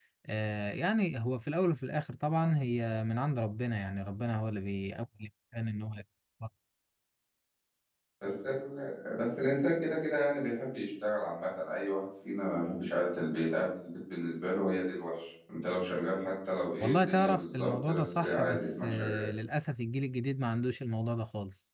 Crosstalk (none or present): present